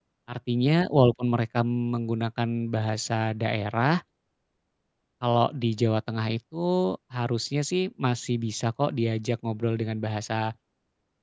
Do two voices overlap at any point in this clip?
No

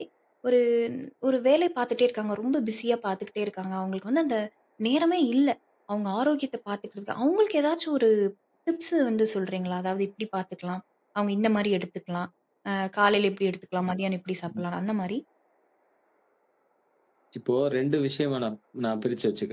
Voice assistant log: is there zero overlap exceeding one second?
Yes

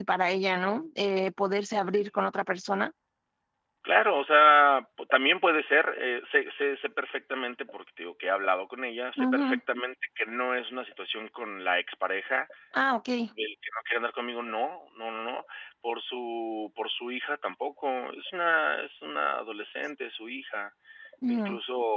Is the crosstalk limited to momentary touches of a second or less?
Yes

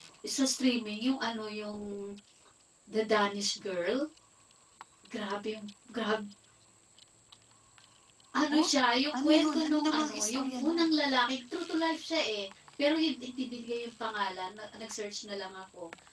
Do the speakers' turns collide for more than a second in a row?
Yes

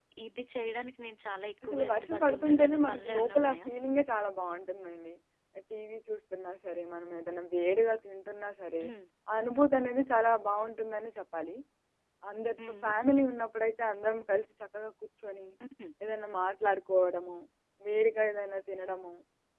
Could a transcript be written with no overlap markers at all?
No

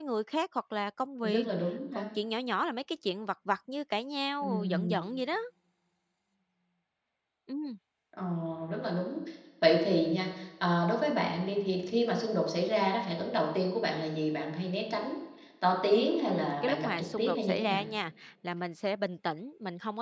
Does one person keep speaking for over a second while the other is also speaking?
Yes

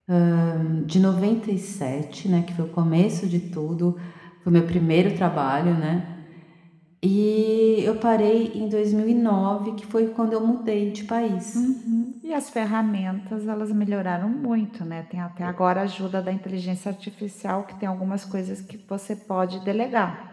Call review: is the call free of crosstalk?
Yes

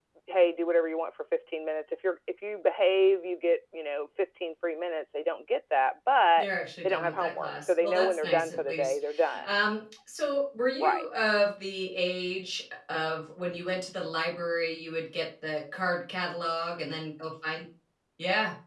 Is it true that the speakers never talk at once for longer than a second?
No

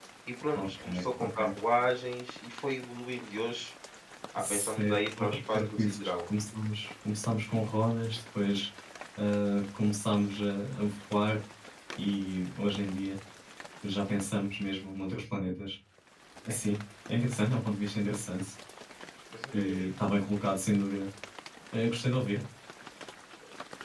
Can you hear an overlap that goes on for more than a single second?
Yes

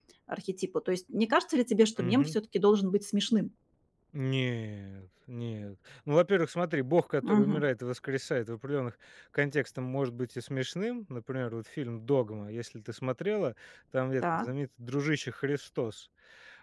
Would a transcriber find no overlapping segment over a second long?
Yes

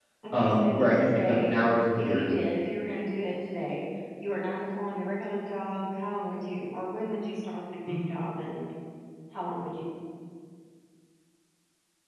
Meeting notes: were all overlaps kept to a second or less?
No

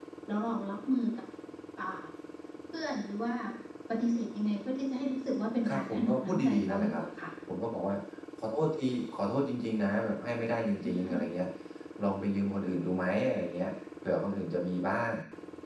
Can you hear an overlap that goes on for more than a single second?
Yes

